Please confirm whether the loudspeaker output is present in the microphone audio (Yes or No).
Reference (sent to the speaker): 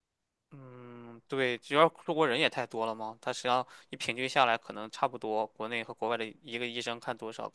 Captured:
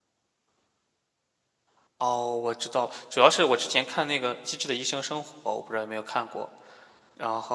No